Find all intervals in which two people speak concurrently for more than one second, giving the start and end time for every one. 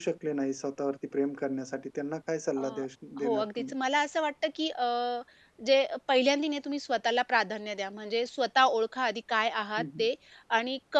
none

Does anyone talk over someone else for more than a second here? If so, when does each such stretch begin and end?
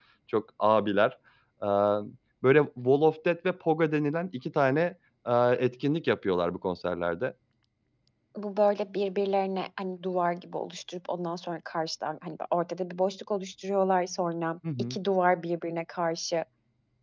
none

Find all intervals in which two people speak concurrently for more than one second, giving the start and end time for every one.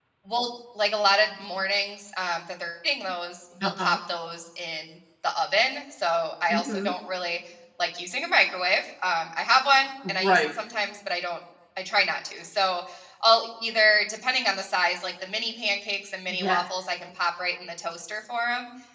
none

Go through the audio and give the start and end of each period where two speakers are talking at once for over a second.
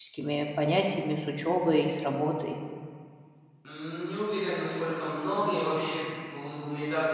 none

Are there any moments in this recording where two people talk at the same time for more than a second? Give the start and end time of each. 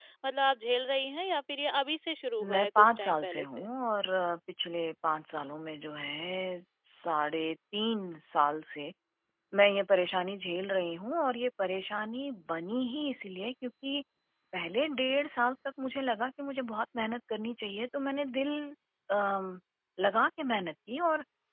2.4-3.7

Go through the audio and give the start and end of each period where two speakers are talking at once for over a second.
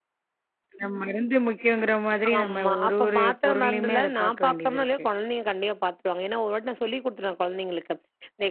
2.4-5.0

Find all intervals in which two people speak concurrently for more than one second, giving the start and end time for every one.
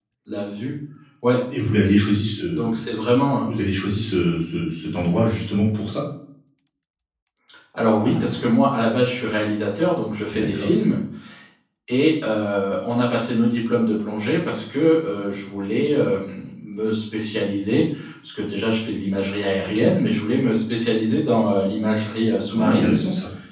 none

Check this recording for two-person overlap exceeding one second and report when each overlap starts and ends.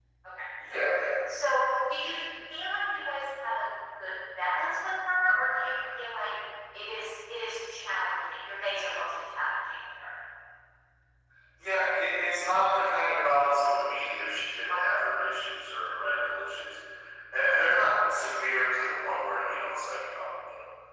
none

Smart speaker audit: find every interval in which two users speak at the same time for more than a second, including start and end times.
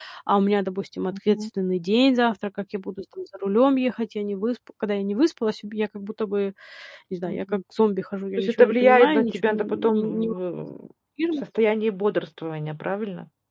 8.4-10.4

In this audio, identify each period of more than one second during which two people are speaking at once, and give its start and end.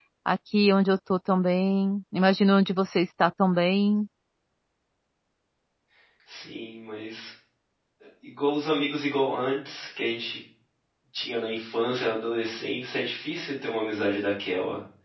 none

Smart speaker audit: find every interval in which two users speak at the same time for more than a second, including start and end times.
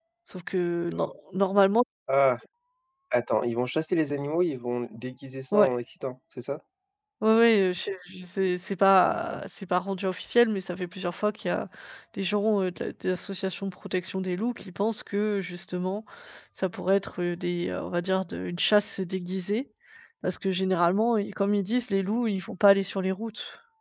none

